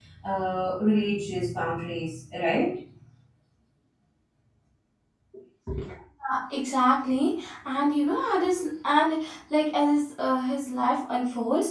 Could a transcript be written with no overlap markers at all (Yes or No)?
Yes